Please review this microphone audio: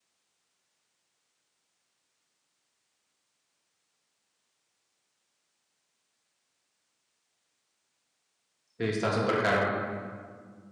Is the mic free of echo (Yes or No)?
Yes